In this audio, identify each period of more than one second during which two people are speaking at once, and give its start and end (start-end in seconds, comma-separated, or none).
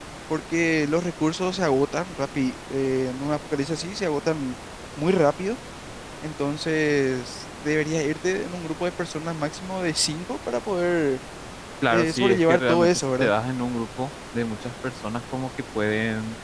11.9-13.3